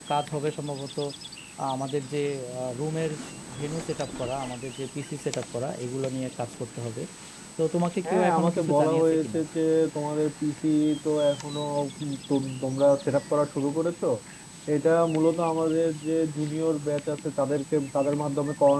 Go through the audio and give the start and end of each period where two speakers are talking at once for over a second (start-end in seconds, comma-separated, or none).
8.1-9.4